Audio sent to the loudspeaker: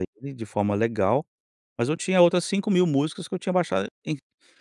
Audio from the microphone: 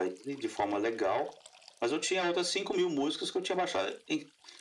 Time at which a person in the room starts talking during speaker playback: none

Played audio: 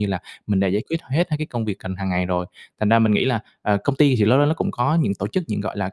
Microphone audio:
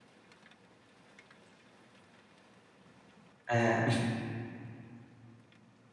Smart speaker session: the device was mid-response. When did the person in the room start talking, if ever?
3.5 s

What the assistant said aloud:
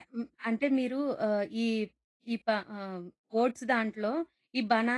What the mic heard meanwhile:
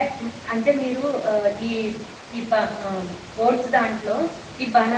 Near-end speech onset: none

